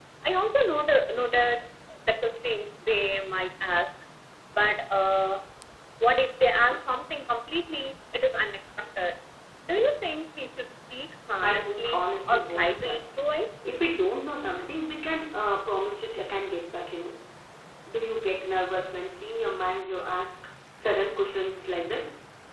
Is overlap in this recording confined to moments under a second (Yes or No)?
No